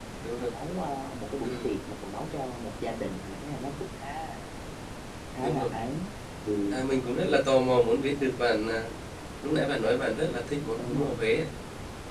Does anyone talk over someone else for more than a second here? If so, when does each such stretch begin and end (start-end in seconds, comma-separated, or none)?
none